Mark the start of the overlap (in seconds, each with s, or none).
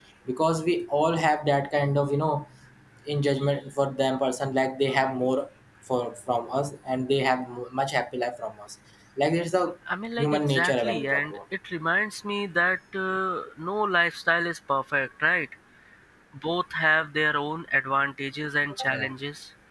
10.2 s